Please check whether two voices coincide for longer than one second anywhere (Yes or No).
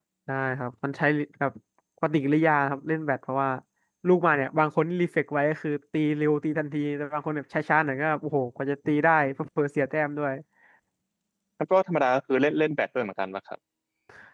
No